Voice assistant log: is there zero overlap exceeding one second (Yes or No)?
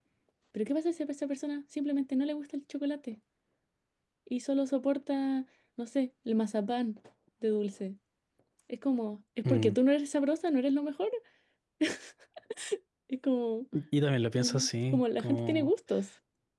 No